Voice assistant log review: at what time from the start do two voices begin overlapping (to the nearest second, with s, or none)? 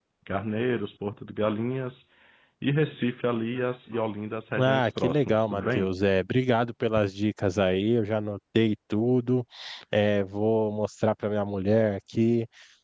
5 s